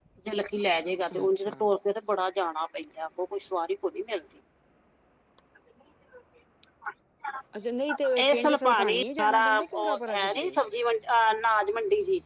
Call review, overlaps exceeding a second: present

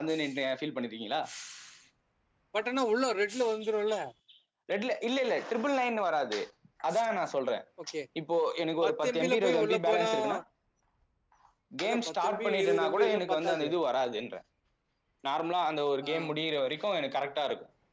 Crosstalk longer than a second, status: present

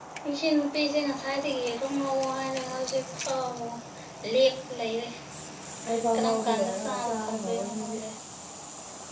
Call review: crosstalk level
present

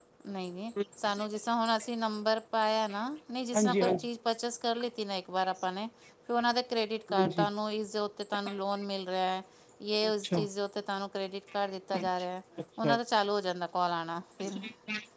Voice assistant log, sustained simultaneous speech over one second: none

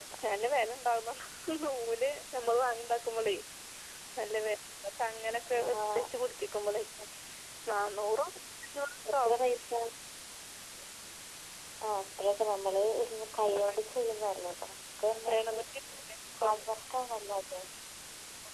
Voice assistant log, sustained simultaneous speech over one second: none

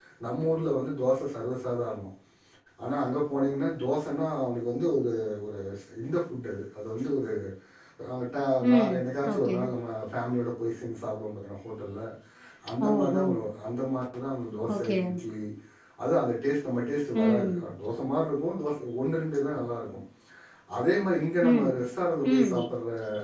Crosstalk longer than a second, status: none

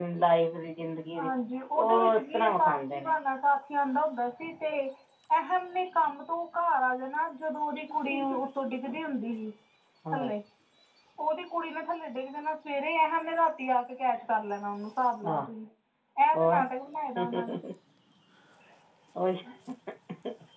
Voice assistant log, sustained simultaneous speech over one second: present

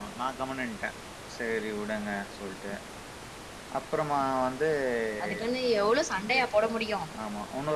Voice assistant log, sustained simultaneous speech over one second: none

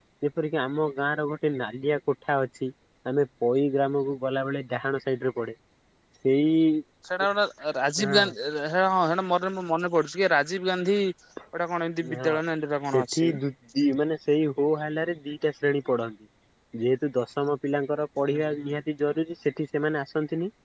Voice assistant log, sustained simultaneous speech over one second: none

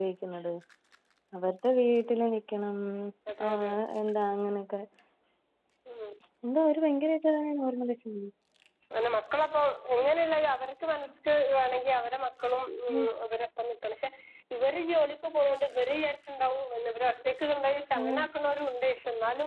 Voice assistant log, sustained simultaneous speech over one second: none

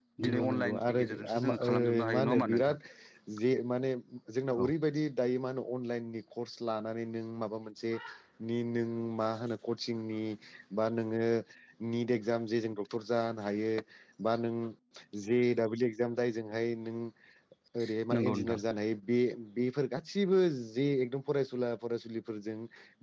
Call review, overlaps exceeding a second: present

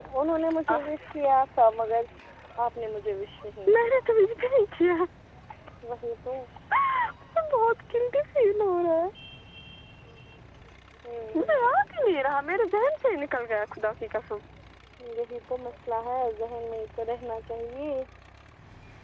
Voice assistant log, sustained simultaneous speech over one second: none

